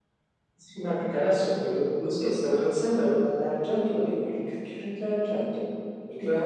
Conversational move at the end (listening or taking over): listening